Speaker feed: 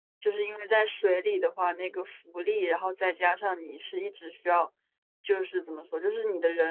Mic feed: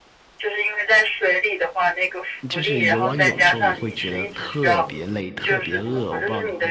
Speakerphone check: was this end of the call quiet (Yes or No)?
No